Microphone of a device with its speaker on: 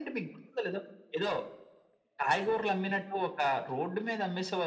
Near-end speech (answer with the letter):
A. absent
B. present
A